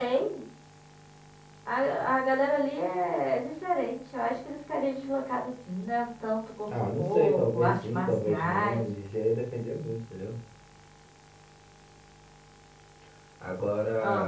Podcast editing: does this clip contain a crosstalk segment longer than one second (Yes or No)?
Yes